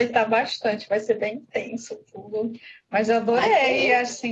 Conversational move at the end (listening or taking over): listening